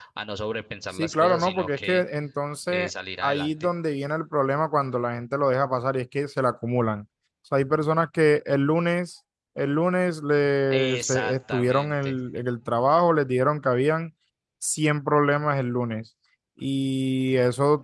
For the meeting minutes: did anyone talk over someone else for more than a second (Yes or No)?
Yes